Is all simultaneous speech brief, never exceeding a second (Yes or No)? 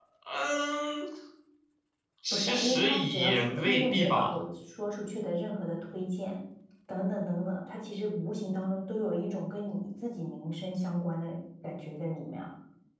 No